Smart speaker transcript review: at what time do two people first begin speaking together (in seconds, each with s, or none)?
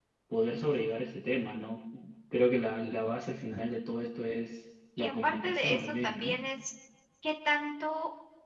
5.0 s